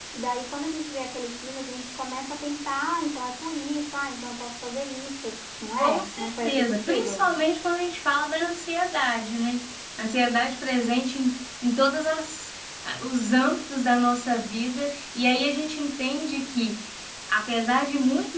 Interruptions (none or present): present